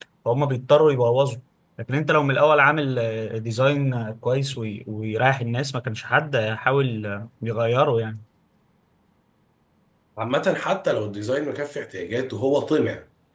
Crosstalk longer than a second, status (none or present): none